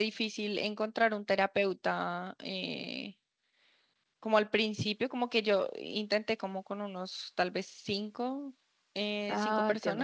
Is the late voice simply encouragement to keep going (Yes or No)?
Yes